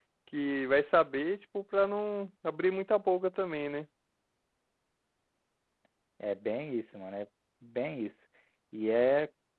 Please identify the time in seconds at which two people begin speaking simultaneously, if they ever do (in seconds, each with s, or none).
none